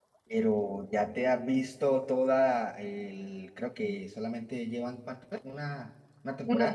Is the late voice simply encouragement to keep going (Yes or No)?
No